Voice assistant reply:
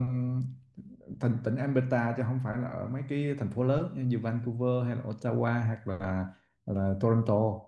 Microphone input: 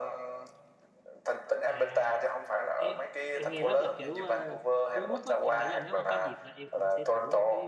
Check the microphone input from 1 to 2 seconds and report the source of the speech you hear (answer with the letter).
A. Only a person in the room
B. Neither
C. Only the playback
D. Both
D